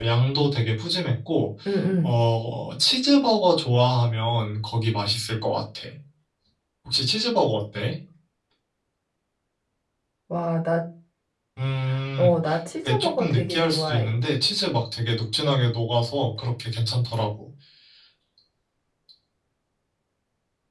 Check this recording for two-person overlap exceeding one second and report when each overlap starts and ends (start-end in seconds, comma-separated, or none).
12.8-14.1